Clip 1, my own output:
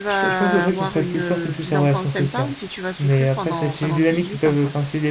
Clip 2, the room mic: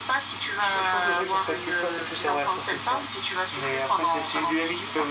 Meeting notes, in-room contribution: none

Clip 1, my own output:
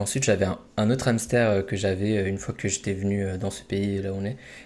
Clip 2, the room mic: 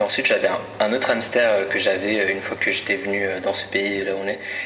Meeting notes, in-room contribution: none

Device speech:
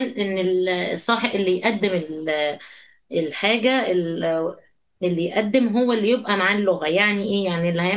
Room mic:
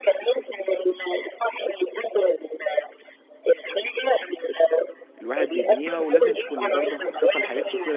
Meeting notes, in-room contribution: present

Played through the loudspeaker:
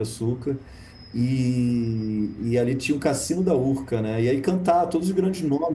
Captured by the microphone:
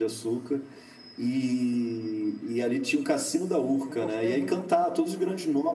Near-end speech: present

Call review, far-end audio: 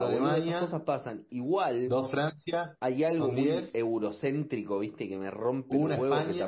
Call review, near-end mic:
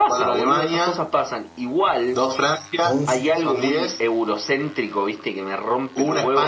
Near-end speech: present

